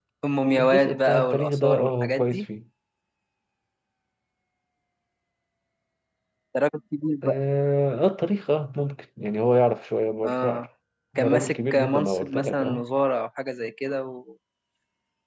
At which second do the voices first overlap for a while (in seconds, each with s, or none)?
0.6 s